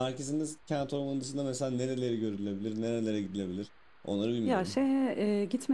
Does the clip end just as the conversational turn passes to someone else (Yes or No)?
Yes